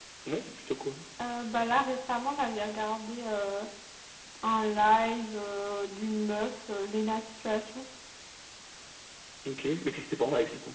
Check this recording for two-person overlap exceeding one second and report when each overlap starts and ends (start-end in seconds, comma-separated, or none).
none